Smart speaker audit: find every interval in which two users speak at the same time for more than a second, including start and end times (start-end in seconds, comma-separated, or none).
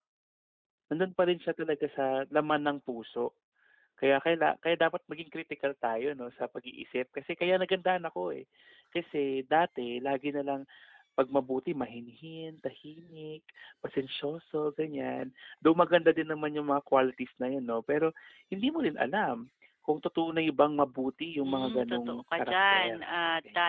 21.4-23.0